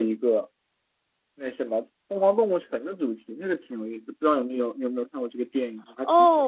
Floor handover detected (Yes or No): Yes